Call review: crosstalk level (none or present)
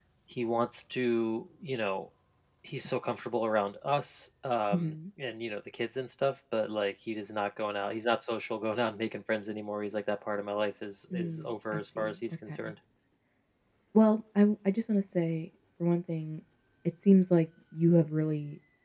present